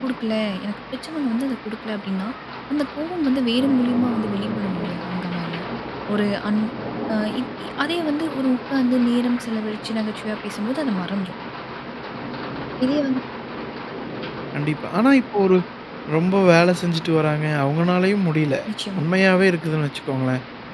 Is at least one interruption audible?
No

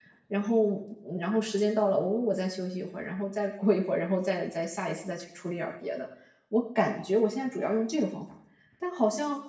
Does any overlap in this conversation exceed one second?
No

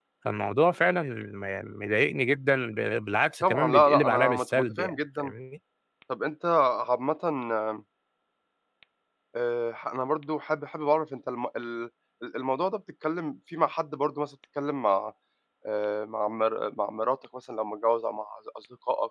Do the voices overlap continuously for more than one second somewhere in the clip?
Yes, from 3.4 s

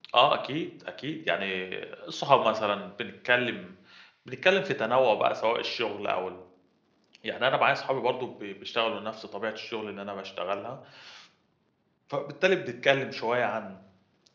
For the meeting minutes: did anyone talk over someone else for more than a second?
No

